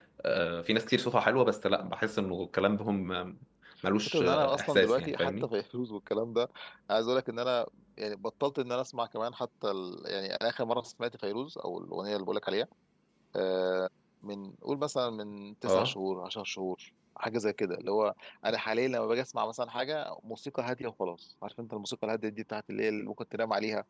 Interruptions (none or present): present